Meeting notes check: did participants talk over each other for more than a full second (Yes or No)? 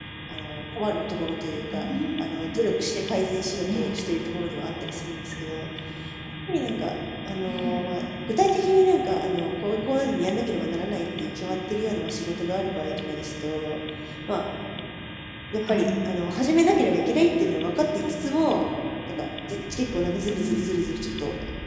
No